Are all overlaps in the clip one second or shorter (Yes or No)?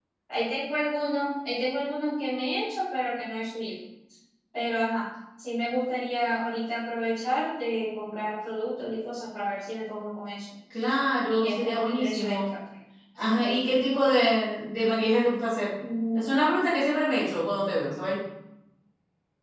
No